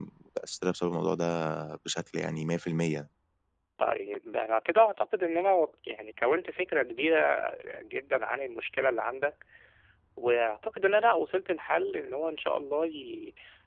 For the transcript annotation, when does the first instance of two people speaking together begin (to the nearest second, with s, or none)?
none